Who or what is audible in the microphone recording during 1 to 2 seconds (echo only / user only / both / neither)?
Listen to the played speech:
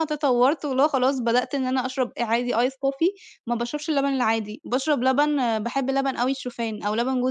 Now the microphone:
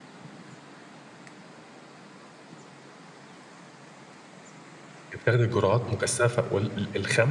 neither